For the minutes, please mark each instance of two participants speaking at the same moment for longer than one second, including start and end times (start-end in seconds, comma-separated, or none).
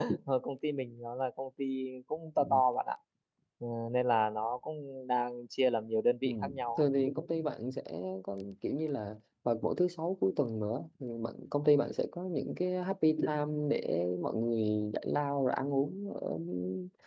none